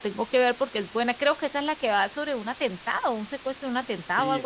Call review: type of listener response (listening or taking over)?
taking over